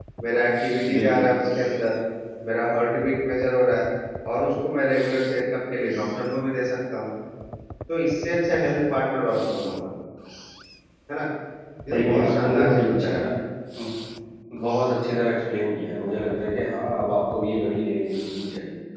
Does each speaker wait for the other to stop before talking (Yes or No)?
No